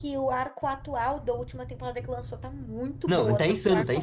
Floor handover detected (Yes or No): Yes